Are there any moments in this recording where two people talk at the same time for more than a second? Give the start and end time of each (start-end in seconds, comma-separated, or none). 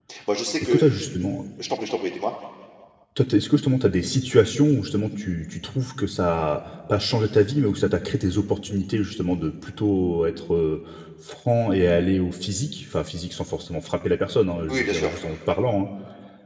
none